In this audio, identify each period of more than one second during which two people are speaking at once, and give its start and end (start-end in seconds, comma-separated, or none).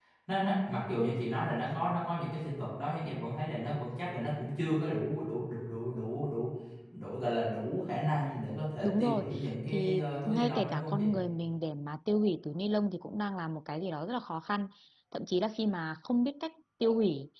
9.7-11.1